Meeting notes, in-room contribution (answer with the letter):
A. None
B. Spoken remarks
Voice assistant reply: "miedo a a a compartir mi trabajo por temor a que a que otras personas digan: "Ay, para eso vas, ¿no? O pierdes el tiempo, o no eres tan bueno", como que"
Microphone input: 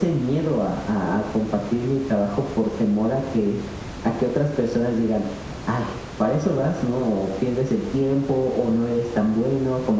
A